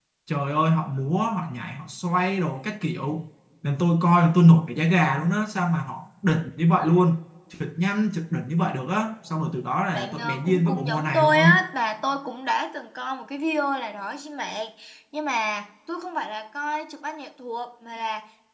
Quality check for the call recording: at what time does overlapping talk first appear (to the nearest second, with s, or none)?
10 s